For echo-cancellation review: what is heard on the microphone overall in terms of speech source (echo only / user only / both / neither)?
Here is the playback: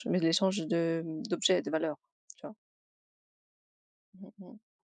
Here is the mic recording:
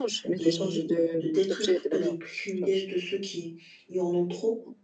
both